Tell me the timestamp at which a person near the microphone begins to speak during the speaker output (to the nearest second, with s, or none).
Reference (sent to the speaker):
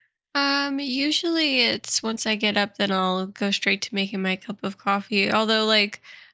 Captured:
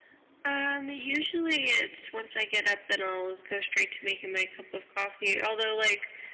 none